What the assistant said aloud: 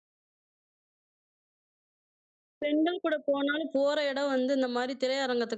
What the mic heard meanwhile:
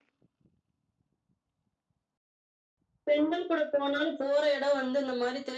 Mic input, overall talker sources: echo only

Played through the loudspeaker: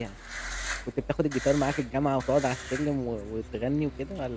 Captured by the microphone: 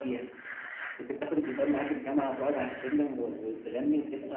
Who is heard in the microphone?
echo only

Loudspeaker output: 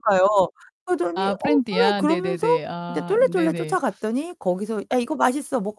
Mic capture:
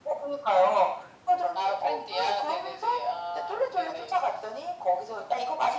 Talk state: echo only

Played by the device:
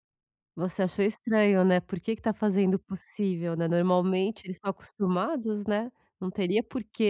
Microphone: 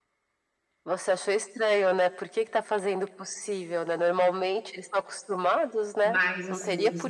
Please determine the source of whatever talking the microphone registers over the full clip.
both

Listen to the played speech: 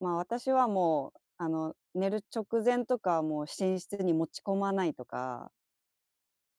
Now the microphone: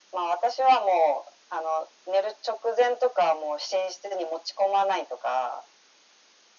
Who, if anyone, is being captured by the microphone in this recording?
echo only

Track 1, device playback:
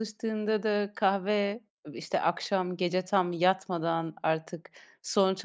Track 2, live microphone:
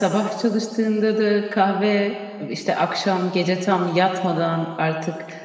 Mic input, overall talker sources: echo only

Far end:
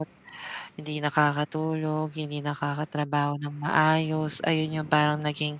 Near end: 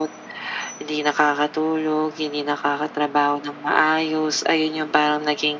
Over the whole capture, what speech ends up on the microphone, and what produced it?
echo only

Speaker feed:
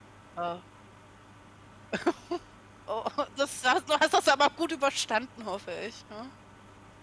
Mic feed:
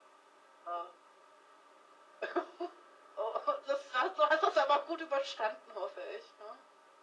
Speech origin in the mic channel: echo only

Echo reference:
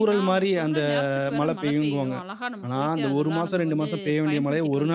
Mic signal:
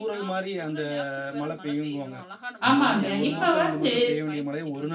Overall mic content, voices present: both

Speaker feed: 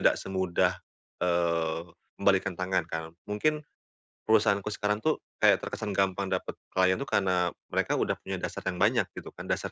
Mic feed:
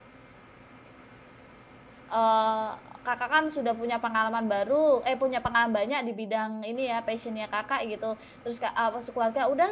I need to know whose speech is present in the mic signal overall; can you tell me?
user only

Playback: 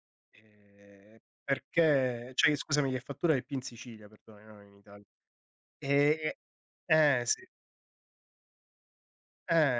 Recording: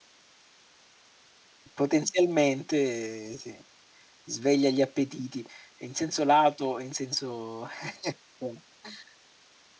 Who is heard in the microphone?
user only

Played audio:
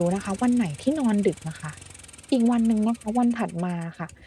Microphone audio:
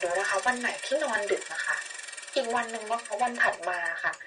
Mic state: echo only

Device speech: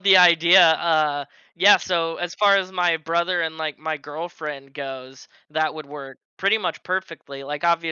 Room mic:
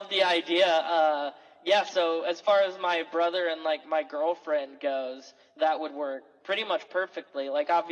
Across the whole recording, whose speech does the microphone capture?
echo only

